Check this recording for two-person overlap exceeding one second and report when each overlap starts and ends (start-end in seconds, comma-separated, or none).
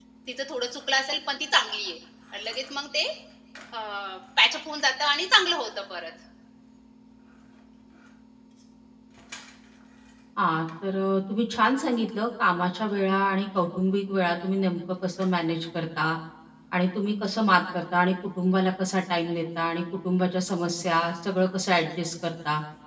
none